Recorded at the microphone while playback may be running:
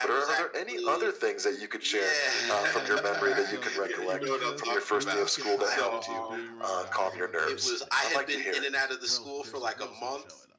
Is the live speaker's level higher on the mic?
No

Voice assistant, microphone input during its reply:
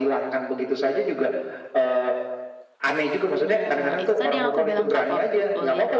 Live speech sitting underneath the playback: Yes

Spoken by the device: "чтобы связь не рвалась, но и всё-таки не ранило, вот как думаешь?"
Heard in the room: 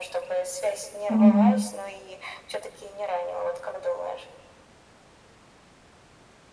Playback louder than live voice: No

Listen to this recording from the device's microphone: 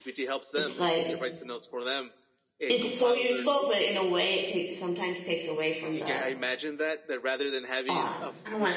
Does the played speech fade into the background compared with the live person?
Yes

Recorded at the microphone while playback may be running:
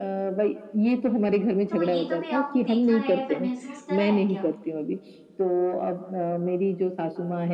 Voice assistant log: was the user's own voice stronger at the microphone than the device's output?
No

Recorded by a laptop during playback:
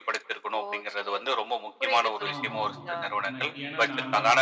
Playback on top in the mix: Yes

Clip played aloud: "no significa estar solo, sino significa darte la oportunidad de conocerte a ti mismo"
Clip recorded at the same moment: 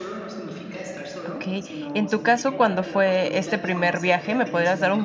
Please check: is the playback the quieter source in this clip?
Yes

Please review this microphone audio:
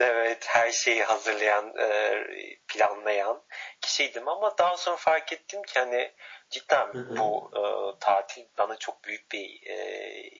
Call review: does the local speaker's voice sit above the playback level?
No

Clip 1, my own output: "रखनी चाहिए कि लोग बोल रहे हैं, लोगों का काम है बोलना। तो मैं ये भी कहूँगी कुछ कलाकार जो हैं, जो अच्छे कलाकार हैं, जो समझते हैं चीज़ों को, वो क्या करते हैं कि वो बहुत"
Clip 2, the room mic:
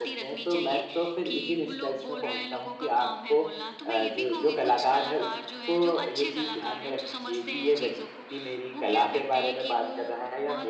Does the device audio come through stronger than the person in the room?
No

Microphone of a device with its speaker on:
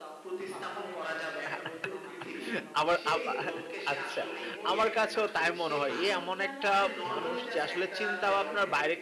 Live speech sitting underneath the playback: No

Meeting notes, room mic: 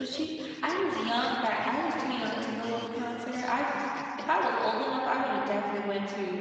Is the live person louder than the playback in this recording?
Yes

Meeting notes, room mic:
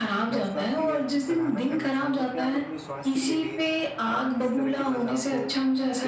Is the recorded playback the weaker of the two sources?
No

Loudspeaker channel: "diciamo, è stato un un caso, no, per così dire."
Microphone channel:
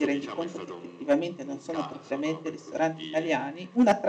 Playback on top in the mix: No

